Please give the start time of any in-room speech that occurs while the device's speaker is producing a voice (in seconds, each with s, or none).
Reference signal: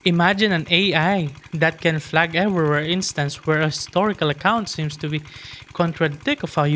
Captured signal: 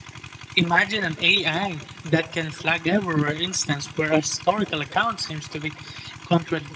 none